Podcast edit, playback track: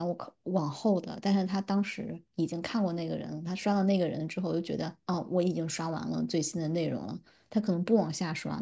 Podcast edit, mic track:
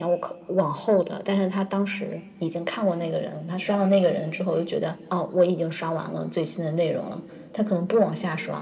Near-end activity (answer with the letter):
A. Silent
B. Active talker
B